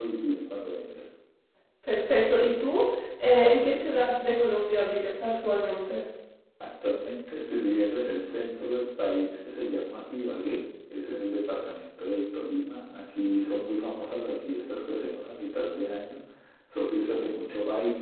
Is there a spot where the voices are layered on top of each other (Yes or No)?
No